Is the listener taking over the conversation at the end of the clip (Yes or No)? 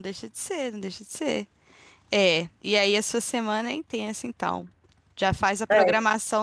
No